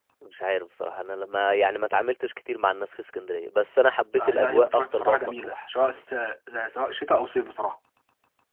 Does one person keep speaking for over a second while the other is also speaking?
Yes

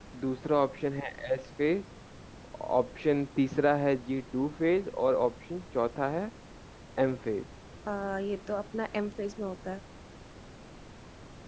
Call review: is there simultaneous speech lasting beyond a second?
No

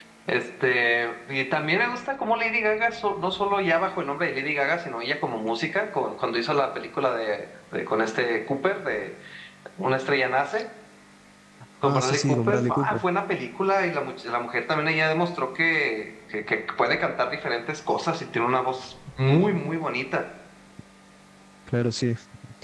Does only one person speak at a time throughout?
No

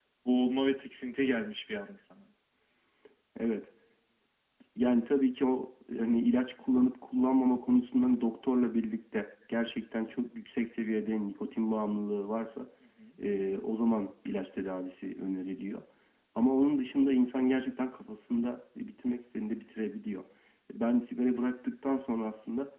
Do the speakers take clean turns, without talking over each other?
Yes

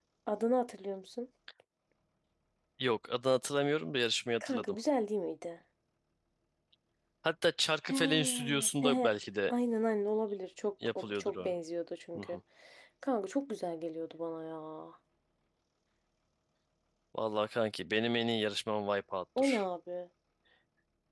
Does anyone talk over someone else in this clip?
Yes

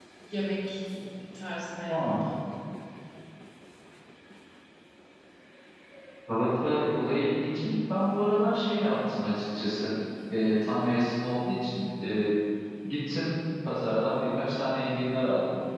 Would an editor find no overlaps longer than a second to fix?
Yes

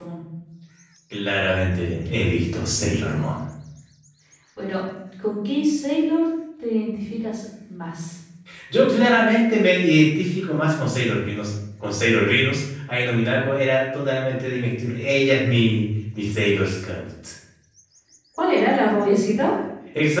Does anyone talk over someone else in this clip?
No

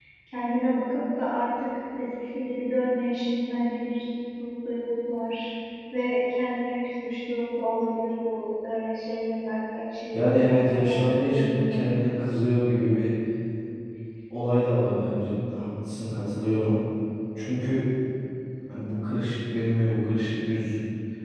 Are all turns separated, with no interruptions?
No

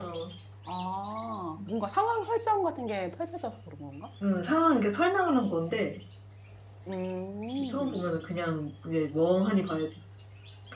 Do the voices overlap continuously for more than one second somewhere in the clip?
No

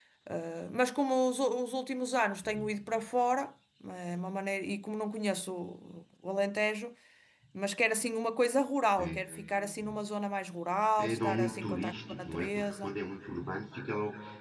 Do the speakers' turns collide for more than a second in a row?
Yes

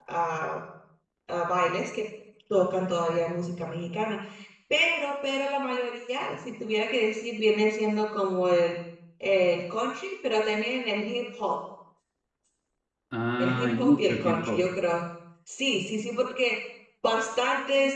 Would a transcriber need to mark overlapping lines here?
Yes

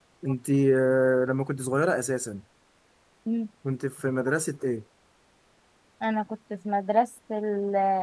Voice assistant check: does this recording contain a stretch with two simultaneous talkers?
No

